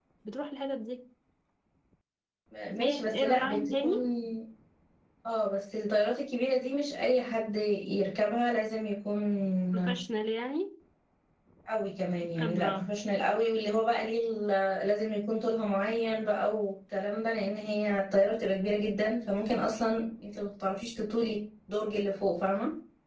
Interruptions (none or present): present